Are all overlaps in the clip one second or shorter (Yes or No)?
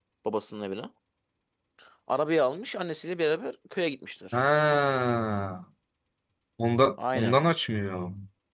Yes